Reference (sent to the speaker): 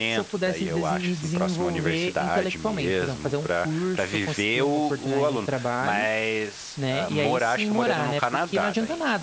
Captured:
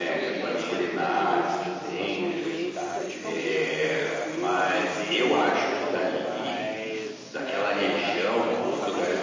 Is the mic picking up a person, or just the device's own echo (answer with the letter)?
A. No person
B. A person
B